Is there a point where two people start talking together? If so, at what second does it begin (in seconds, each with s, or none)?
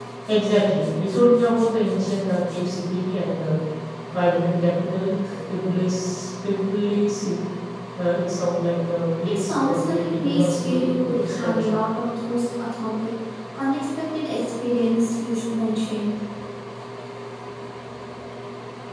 9.2 s